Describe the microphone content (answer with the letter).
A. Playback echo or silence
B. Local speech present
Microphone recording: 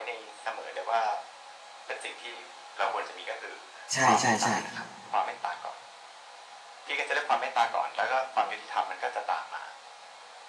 B